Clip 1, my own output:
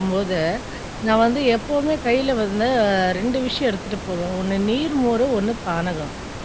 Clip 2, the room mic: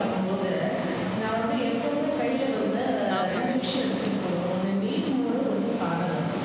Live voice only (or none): ஆமாங்க.